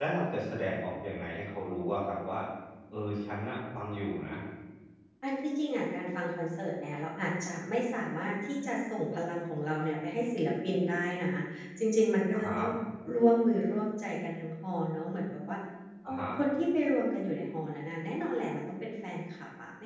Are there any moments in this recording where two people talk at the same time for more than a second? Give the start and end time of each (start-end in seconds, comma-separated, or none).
none